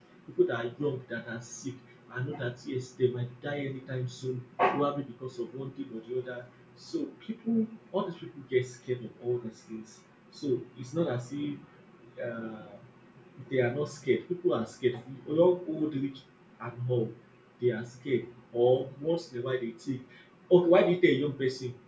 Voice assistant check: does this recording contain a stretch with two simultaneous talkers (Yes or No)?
No